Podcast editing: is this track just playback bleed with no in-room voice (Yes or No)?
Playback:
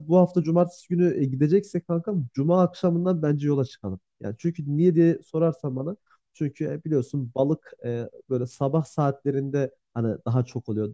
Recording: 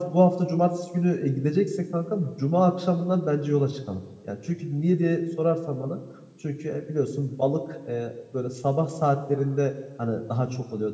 Yes